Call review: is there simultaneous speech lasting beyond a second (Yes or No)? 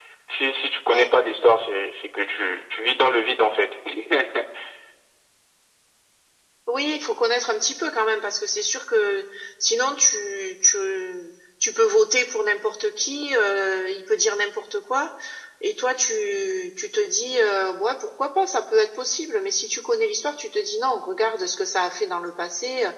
No